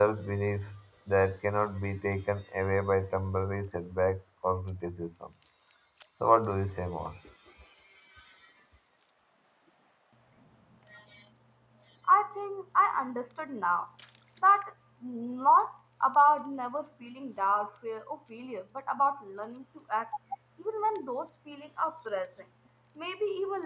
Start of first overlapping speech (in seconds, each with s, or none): none